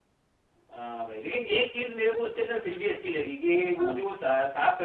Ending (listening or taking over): listening